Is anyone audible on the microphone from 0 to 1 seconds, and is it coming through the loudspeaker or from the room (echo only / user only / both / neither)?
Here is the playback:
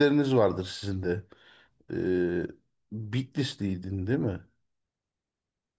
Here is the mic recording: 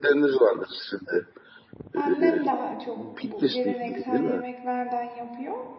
echo only